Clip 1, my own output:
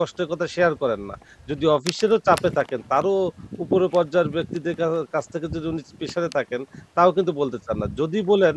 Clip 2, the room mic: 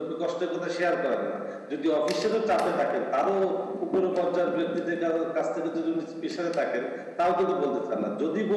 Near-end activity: none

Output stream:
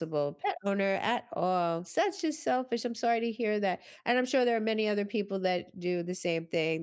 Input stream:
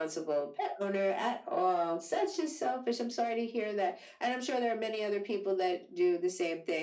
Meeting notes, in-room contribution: none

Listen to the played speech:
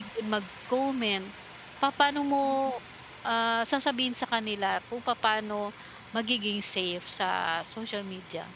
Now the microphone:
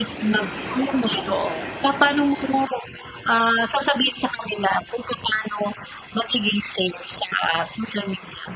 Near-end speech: present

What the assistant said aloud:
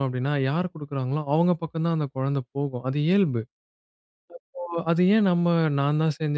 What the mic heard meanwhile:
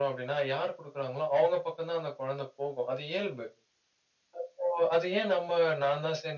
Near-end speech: none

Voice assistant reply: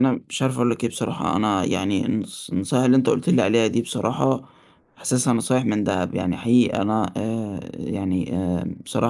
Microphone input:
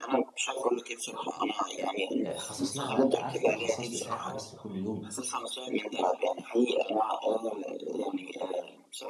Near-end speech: present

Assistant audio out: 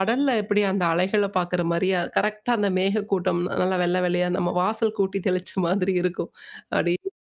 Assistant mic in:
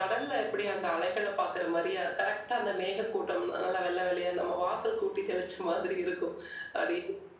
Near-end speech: none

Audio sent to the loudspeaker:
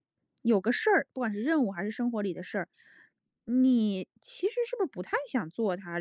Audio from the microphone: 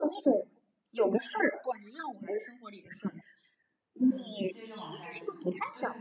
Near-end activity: present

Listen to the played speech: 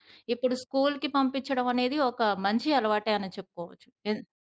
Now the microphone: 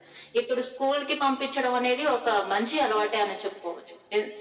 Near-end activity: none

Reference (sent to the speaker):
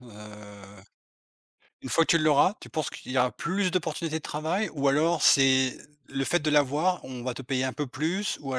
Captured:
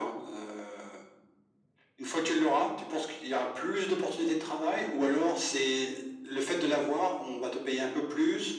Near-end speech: none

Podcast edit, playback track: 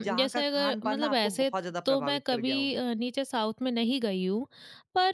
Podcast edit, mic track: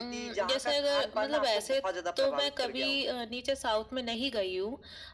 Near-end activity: none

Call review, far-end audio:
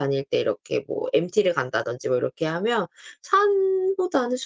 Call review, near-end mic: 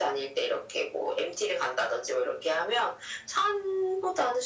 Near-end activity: none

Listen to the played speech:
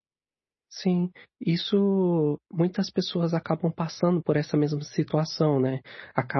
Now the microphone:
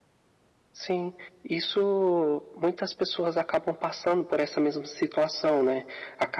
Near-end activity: none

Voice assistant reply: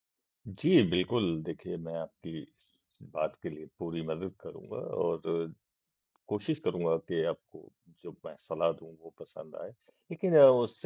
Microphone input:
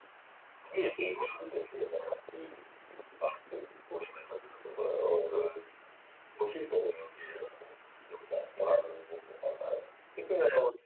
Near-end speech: none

